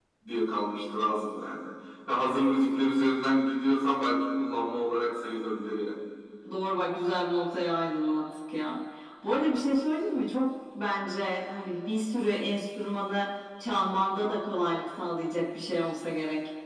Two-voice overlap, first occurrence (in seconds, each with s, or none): none